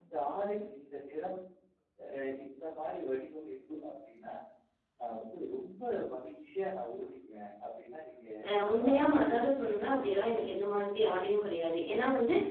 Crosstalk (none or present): present